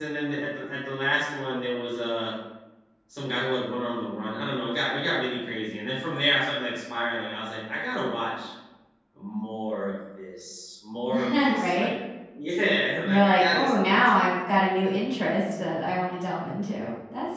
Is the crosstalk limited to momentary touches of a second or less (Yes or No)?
No